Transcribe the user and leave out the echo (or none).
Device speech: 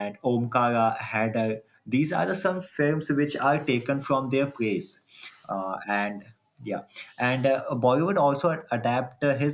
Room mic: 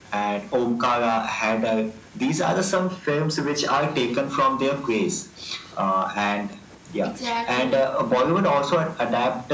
exactly